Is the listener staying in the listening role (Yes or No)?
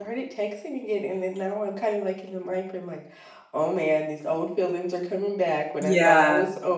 Yes